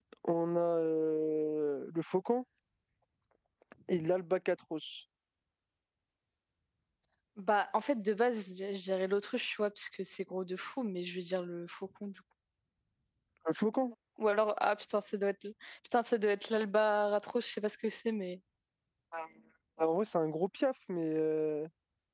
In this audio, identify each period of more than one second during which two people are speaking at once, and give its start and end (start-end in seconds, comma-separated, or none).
none